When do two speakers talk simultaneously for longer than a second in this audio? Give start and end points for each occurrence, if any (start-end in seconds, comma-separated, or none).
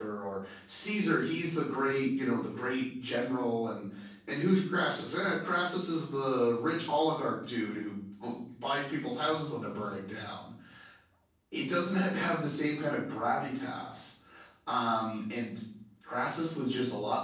none